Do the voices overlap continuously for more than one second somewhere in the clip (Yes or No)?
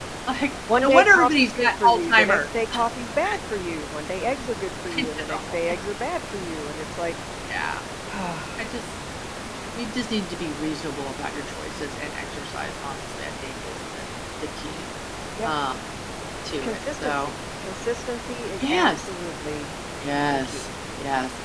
Yes